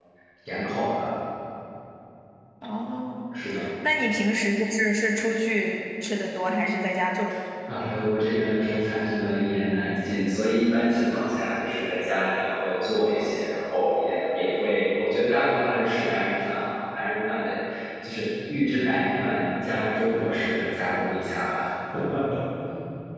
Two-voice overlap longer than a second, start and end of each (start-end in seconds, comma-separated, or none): none